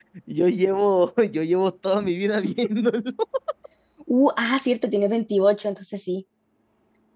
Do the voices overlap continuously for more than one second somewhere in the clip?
No

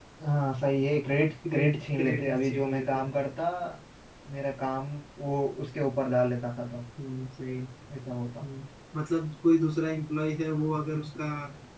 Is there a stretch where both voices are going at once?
Yes, from 1.4 s

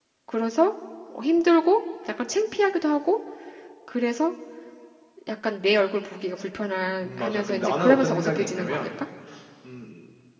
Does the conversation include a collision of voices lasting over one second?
Yes, from 7.0 s

